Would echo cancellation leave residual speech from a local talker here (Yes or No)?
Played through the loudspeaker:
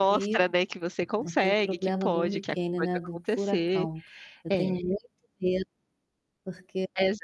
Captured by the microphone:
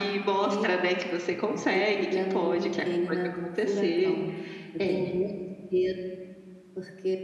No